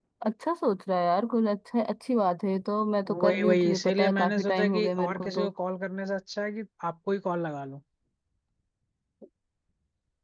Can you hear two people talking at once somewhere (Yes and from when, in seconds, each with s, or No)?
Yes, from 3.0 s